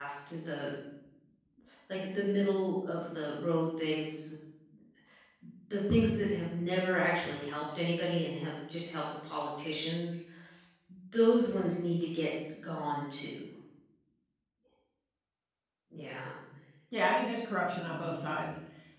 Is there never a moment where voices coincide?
Yes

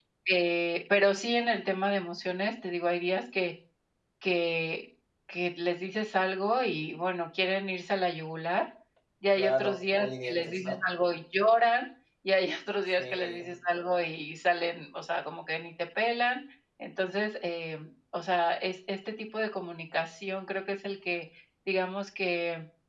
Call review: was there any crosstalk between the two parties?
Yes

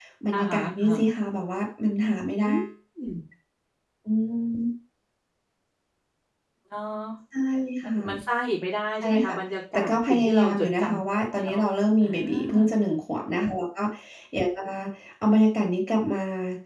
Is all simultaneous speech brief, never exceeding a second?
No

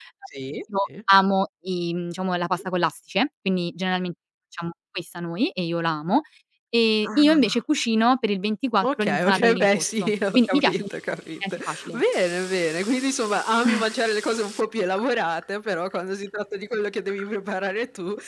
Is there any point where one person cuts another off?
Yes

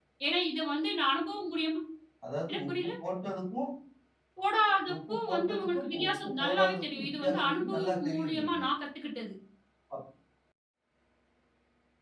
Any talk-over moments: Yes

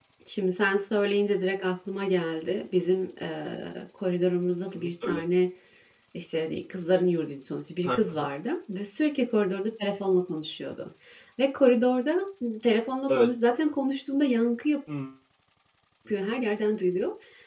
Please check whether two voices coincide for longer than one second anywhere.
No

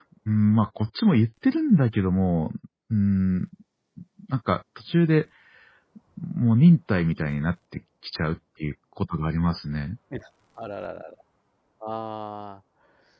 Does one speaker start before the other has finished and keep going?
No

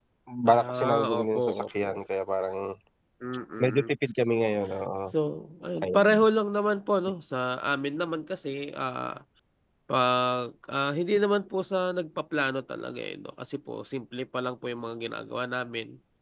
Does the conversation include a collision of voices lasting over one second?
Yes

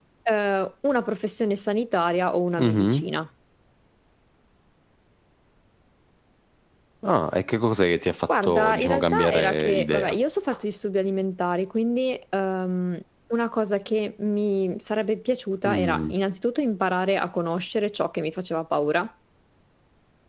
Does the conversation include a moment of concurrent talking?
Yes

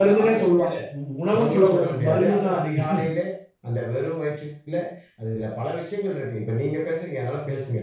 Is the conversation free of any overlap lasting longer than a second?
No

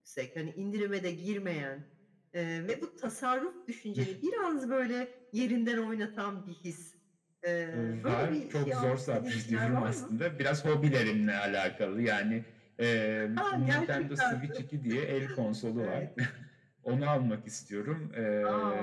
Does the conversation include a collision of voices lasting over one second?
Yes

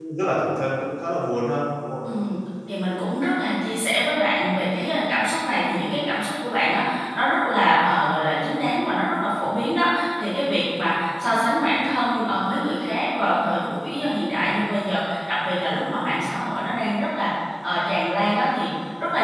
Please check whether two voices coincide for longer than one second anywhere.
No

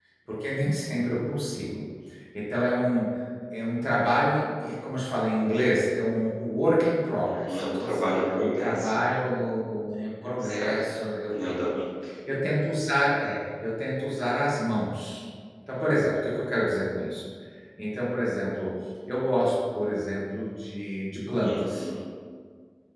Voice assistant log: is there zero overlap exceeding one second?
No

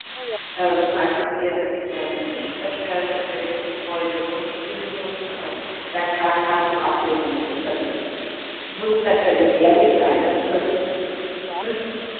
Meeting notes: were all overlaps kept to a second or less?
Yes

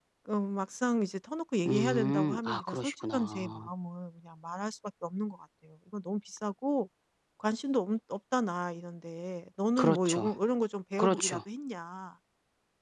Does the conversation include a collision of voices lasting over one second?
Yes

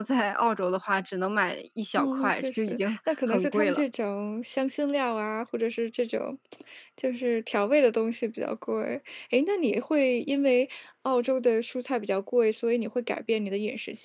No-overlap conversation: No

